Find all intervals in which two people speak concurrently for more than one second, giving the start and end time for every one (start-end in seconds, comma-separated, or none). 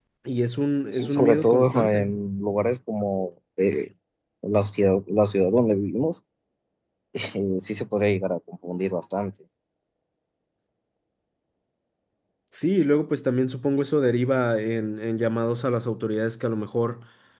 0.9-2.1